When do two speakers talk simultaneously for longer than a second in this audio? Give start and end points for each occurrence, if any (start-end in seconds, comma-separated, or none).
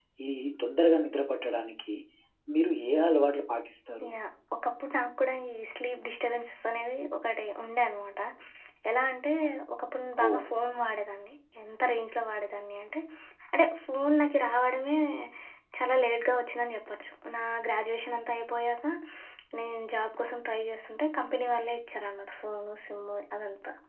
none